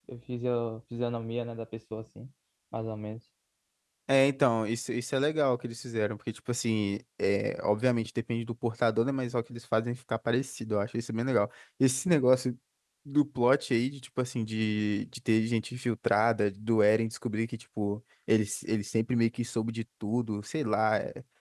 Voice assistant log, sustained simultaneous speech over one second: none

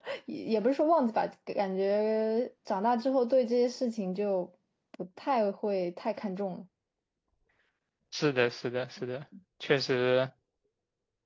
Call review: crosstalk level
none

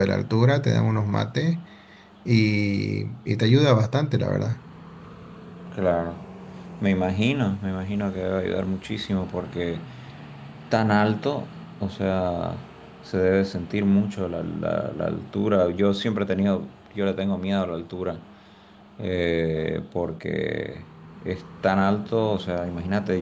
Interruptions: none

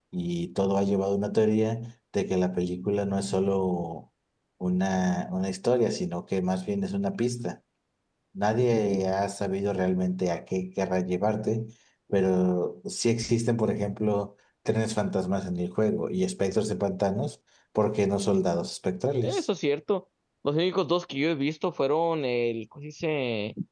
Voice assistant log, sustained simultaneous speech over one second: none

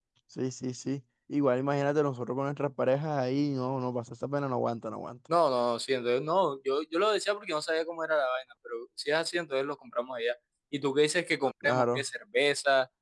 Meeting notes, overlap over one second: none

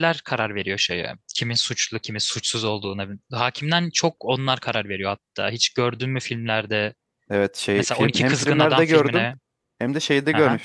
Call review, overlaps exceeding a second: present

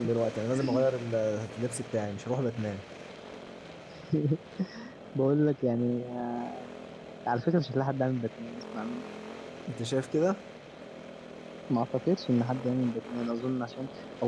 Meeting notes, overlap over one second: none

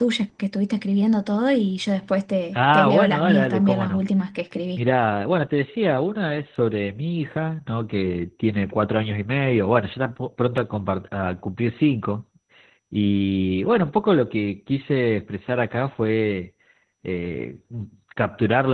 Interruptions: present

